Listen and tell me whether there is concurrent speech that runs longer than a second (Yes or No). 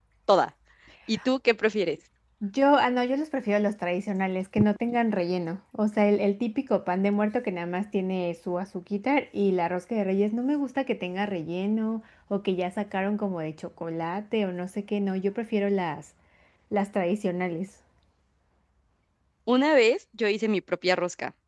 No